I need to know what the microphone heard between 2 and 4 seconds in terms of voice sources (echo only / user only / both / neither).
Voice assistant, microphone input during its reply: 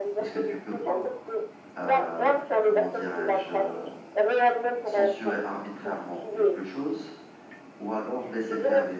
both